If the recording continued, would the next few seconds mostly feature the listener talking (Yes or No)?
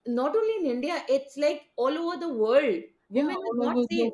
Yes